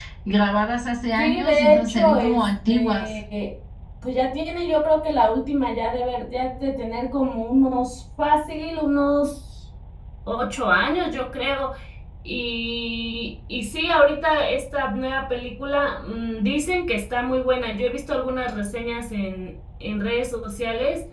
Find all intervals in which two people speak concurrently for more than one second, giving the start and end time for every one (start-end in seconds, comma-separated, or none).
1.2-3.1